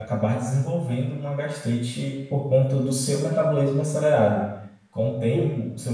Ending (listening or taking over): listening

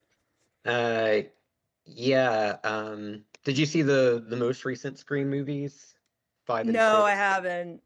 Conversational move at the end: taking over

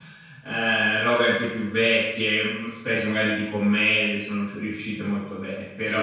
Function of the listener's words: listening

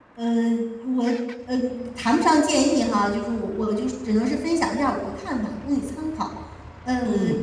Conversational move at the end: listening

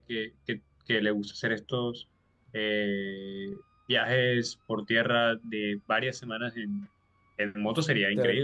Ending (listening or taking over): taking over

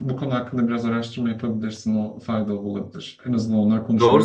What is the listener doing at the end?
taking over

